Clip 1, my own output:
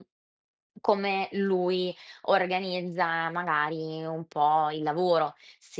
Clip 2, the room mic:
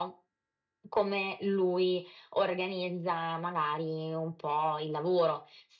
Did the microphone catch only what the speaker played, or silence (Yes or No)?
Yes